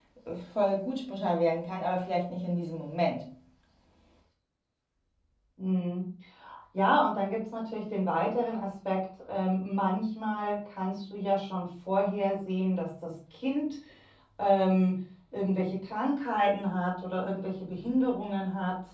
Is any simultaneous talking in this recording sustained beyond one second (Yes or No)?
No